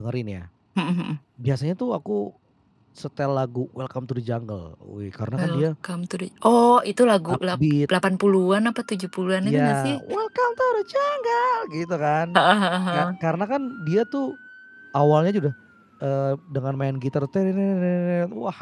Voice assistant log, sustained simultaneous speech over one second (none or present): none